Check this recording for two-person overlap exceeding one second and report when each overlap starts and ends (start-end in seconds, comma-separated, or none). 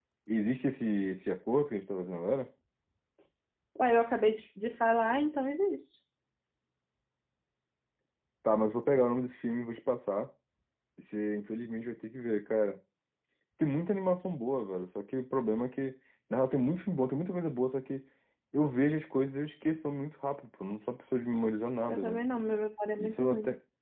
none